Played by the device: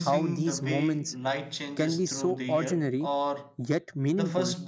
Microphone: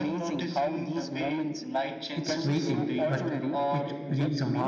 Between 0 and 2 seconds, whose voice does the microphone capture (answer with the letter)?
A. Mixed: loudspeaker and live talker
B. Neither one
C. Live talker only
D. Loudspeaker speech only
D